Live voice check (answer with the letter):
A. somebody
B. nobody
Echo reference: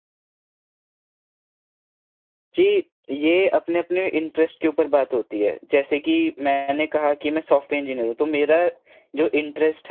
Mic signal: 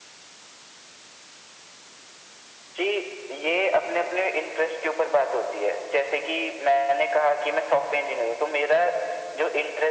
B